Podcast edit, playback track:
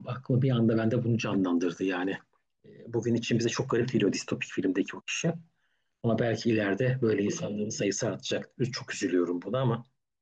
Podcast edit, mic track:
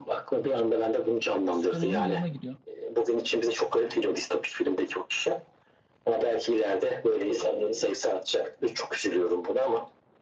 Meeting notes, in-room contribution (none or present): present